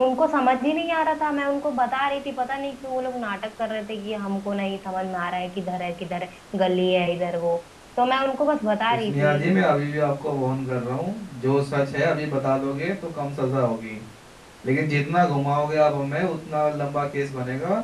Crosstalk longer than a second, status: none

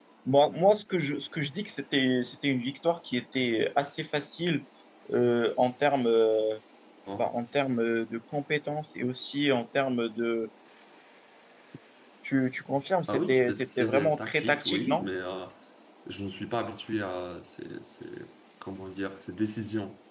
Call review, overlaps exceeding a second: present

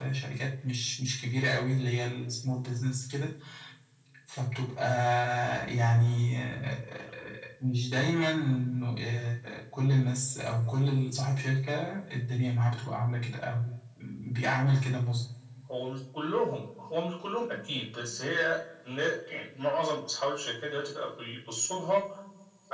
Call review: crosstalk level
none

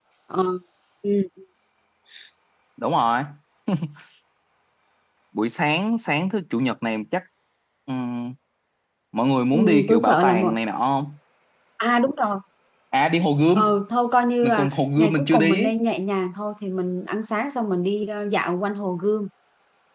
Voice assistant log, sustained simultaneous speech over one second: present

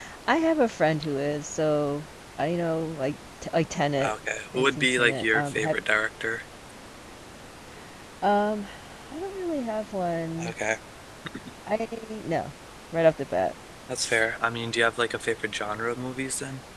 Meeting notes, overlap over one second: present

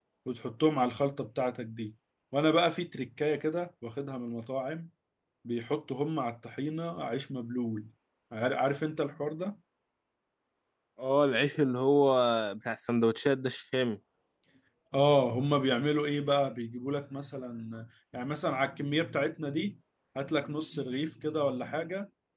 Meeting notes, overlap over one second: none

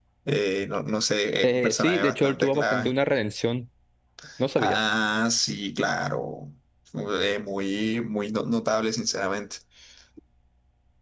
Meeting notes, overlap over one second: present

